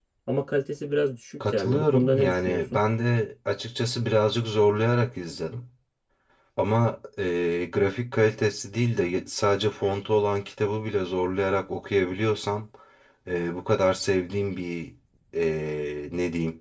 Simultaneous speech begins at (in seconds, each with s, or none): 1.4 s